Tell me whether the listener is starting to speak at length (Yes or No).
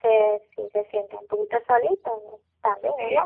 Yes